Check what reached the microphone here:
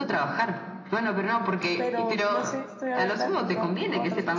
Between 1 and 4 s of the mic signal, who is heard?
both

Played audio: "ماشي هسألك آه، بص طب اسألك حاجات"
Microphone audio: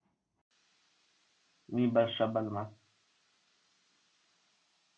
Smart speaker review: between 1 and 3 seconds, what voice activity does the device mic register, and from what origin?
user only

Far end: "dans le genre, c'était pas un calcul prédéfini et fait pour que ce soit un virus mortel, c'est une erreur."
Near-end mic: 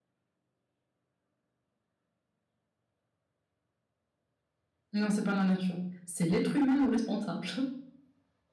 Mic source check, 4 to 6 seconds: user only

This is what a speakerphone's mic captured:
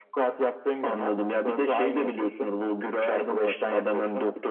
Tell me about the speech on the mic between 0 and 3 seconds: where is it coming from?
echo only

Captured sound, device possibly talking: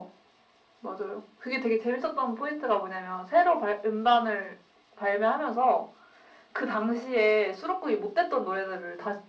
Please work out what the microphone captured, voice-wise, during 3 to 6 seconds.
echo only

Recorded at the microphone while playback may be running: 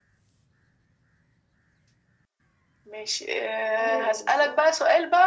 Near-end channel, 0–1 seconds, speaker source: neither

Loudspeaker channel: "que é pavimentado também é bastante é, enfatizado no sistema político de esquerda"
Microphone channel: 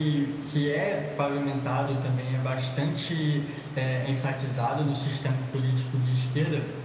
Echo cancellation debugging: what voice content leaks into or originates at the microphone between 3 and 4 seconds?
echo only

